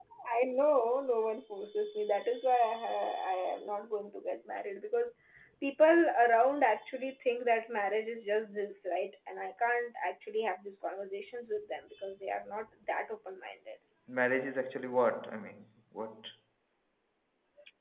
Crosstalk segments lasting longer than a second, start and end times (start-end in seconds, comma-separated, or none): none